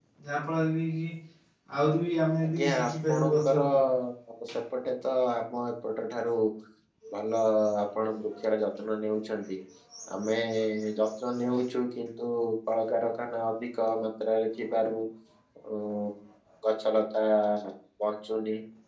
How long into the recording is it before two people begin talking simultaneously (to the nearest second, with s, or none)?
2 s